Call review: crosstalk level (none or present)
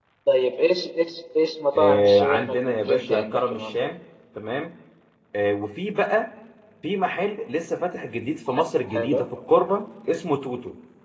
present